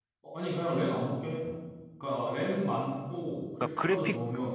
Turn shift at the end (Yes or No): Yes